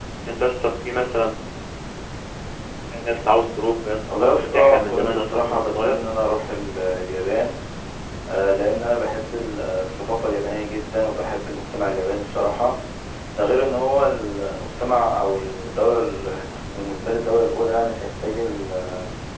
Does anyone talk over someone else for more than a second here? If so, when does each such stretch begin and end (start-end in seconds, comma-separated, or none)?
4.2-5.9